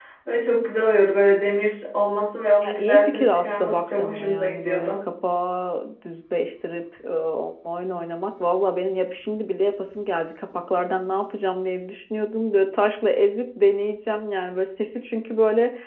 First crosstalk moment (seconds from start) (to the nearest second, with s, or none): 3 s